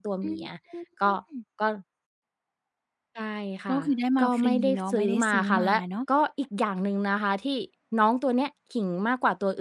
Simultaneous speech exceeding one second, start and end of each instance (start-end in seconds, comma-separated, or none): 4.2-5.8